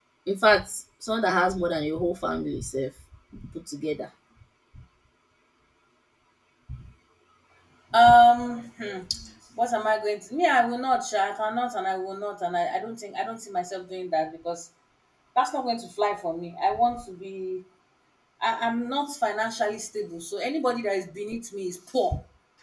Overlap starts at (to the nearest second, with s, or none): none